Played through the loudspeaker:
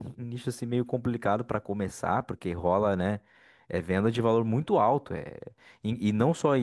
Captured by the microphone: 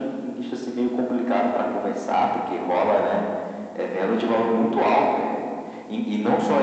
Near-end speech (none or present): none